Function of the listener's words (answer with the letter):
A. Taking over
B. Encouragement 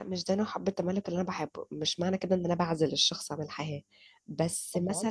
B